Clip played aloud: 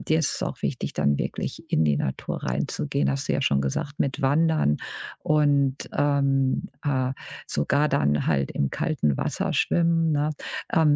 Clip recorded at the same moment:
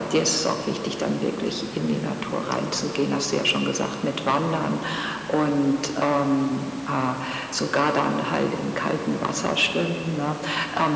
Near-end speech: none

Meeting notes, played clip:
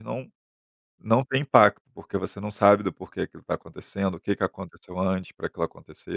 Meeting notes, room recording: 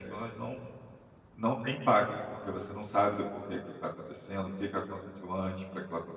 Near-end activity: none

